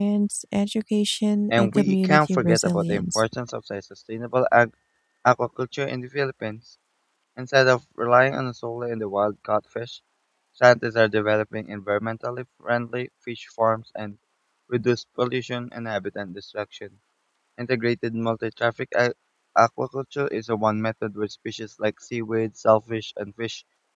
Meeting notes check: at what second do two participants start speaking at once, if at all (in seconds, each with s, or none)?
1.5 s